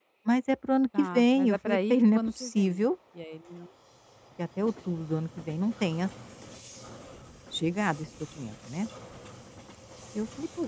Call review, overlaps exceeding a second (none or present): present